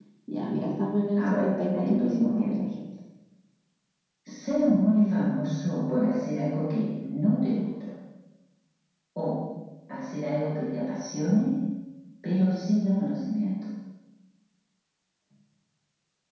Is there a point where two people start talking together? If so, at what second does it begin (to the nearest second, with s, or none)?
1 s